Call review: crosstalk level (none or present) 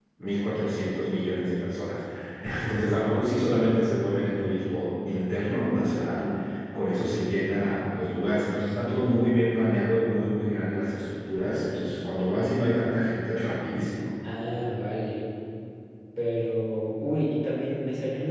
none